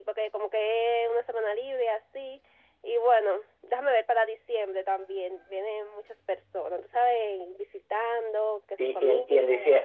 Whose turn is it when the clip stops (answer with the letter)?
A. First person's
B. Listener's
B